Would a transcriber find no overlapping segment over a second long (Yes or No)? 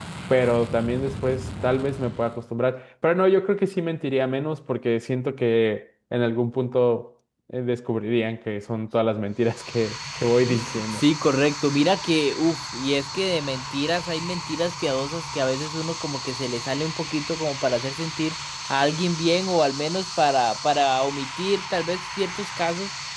Yes